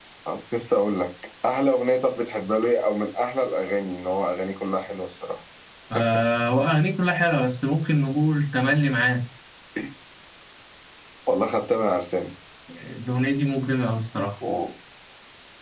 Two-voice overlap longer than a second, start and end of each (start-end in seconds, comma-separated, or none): none